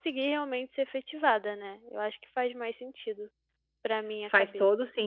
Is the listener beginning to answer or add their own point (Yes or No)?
Yes